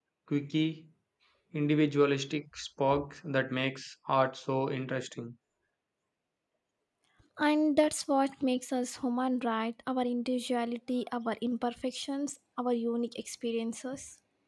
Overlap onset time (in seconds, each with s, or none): none